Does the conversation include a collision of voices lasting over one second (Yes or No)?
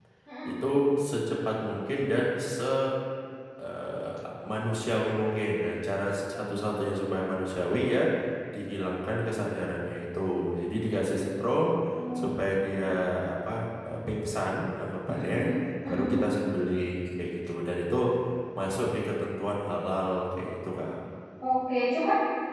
No